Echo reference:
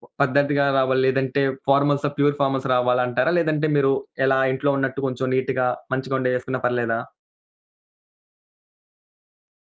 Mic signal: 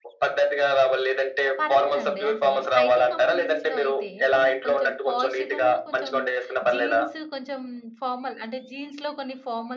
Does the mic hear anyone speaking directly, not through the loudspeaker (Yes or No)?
Yes